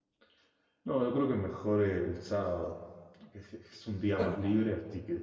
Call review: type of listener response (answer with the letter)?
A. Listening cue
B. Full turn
A